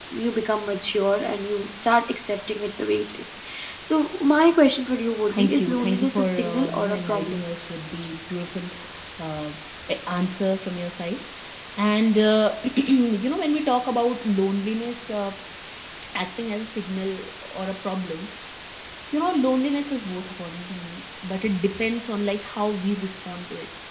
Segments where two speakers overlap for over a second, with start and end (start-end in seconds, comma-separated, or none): 5.3-7.4